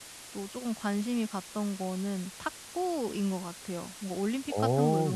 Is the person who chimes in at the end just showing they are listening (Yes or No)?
Yes